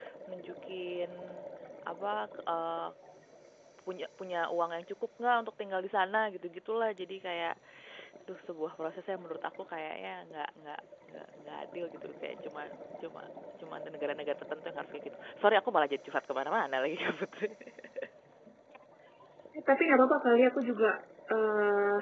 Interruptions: none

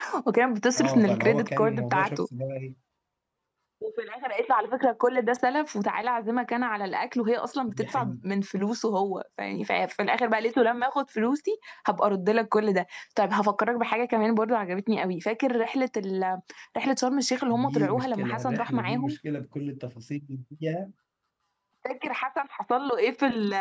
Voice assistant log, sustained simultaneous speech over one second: present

